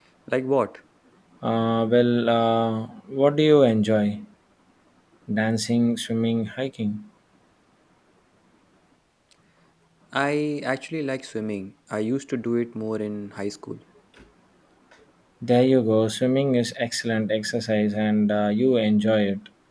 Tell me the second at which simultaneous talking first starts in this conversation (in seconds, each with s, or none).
none